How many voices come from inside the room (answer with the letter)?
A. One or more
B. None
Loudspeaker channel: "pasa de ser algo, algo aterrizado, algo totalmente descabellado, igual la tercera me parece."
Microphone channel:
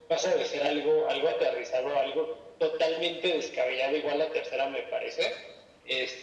B